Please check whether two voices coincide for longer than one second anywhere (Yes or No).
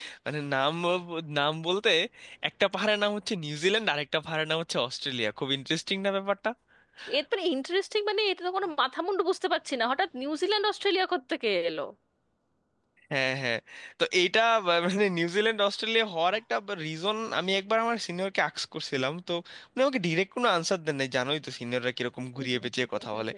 No